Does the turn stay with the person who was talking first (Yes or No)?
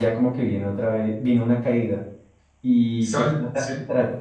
Yes